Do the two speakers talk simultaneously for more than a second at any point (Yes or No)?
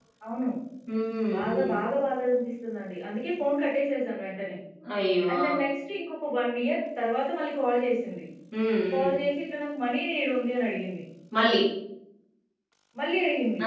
No